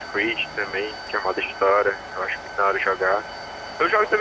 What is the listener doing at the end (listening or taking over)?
listening